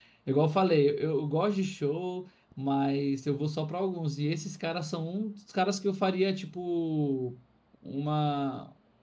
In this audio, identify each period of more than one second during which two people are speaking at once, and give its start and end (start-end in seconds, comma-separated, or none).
none